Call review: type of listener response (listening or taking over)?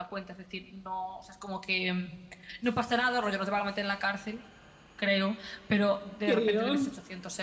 listening